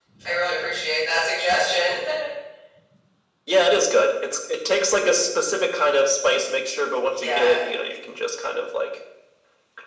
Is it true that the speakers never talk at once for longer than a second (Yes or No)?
Yes